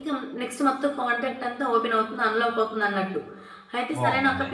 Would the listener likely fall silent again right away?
Yes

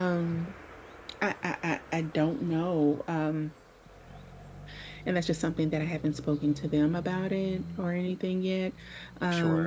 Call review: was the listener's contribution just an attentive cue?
No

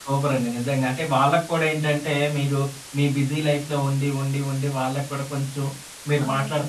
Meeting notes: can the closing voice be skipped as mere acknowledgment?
Yes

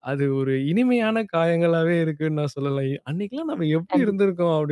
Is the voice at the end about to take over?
No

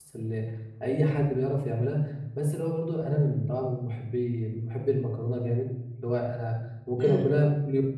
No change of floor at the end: Yes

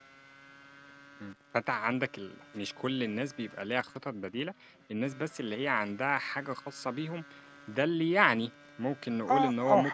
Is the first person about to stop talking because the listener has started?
Yes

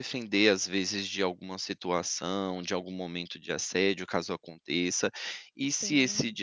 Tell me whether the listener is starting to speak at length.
No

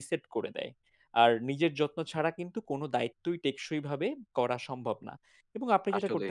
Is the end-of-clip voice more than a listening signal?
No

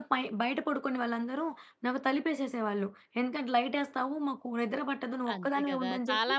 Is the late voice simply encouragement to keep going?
No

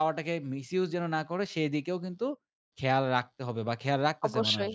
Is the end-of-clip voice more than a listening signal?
Yes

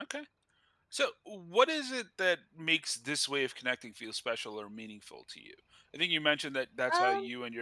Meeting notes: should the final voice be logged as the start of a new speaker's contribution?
No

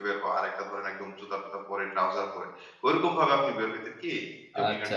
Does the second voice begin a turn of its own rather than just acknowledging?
Yes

